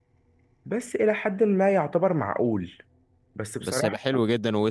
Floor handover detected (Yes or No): Yes